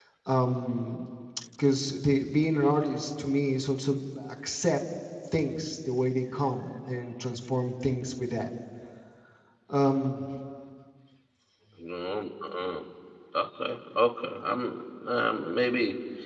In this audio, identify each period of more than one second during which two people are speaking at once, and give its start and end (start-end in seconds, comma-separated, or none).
none